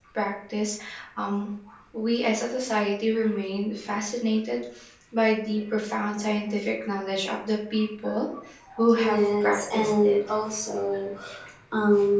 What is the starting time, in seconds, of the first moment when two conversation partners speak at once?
9 s

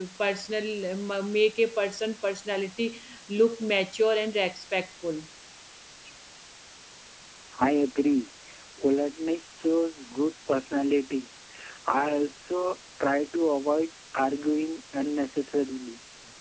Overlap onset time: none

